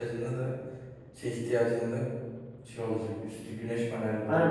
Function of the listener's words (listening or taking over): taking over